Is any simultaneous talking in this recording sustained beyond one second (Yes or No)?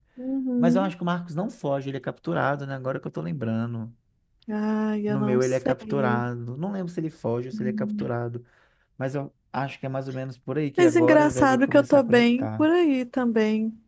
Yes